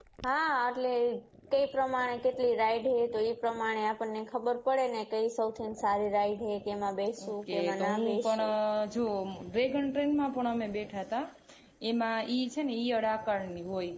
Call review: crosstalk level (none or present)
present